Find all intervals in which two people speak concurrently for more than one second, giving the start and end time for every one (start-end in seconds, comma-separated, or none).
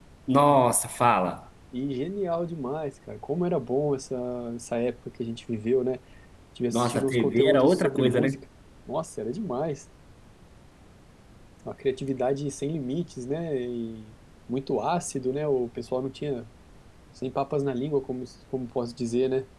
6.7-8.3